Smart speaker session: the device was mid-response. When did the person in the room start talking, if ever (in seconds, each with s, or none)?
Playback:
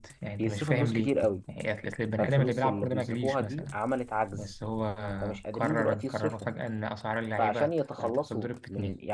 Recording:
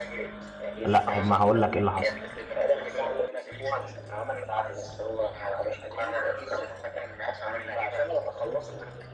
0.8 s